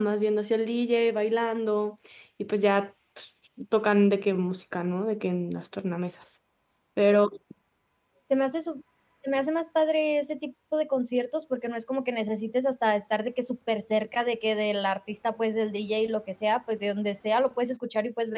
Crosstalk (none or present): none